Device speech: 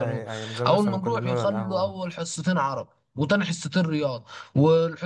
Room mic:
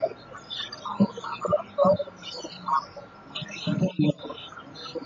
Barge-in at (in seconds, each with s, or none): none